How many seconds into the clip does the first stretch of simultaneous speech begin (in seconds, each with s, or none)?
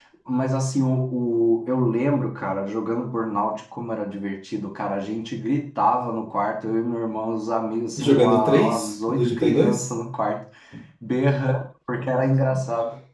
8.0 s